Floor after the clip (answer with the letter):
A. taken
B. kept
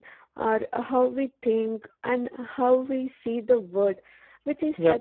B